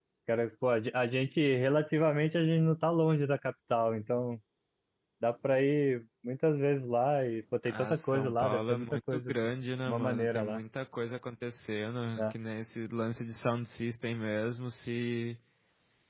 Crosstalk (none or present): present